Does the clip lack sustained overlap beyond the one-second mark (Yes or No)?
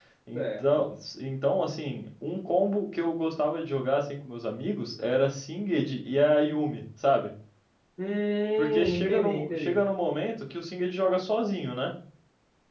No